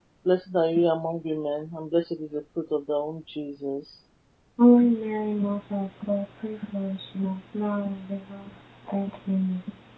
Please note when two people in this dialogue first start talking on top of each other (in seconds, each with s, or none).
none